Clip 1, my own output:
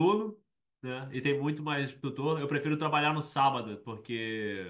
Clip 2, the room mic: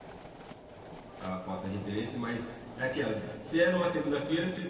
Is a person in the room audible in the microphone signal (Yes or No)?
Yes